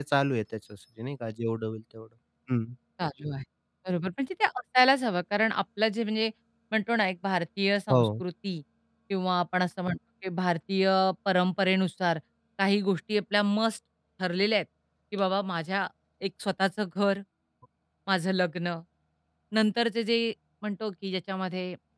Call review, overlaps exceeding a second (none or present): none